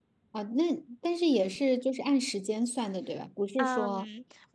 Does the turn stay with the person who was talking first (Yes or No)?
No